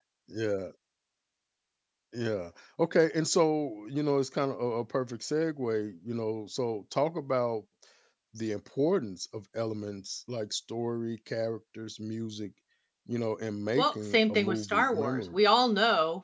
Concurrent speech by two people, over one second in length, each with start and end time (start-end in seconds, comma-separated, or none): 13.8-15.4